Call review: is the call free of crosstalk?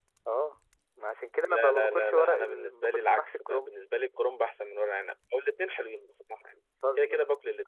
No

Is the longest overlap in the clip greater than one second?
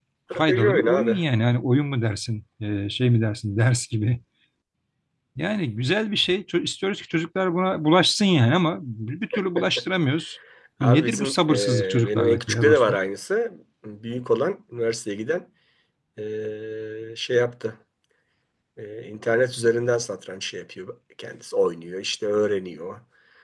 Yes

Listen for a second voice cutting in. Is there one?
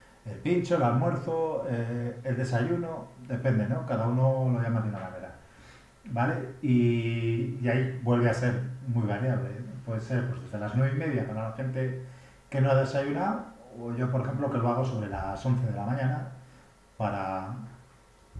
No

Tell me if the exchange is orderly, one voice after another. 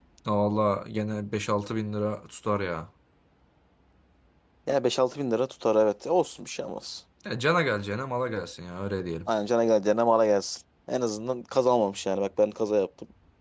Yes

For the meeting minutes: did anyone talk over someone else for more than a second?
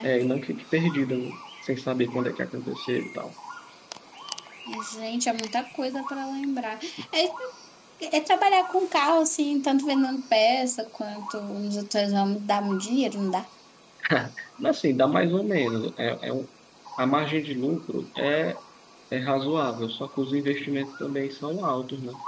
No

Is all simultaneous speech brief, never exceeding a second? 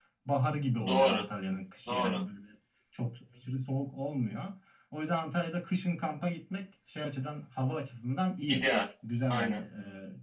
Yes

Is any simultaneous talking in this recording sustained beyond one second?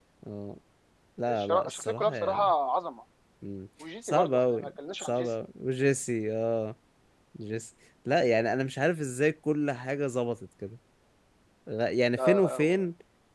Yes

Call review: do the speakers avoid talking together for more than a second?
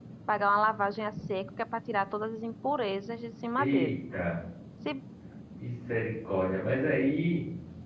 Yes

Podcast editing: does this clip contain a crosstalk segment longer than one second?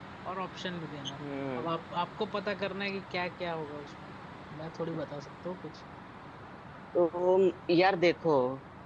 No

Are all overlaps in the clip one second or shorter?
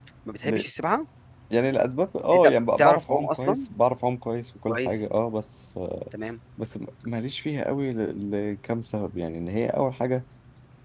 No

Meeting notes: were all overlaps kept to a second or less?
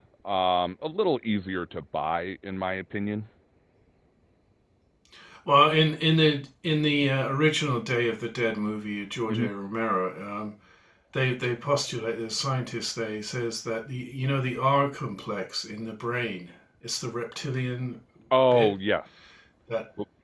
Yes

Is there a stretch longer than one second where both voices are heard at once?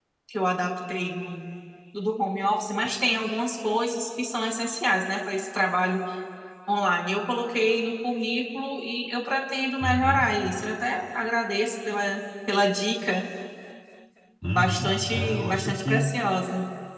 Yes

